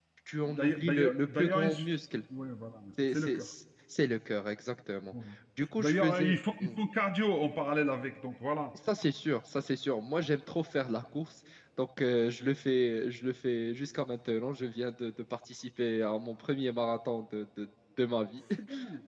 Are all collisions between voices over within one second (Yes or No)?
No